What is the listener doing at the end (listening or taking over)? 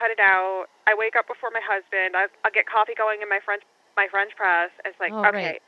listening